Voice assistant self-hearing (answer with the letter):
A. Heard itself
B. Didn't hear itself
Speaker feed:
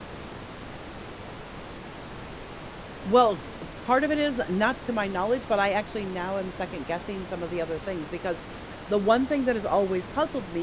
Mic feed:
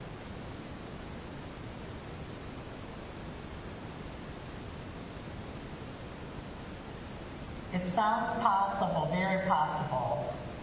B